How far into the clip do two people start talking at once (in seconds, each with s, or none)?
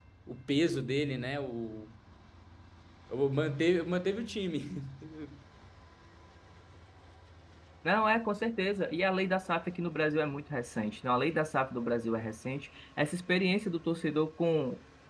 none